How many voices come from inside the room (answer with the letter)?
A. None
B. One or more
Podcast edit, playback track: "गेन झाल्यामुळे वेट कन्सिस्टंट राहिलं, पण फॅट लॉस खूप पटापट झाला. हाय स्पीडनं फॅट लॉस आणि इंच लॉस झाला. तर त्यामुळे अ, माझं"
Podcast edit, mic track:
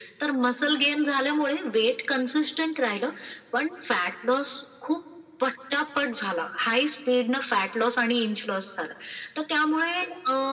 A